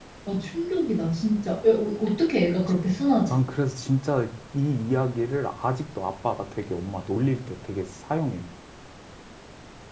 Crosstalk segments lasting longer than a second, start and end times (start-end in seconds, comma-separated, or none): none